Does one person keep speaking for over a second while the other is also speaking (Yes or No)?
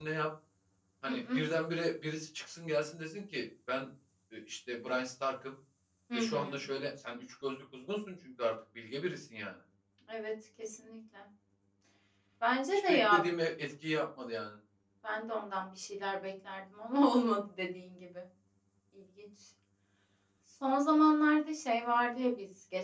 No